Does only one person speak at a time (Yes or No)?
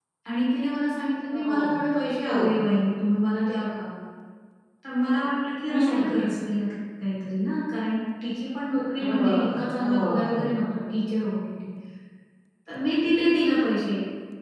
No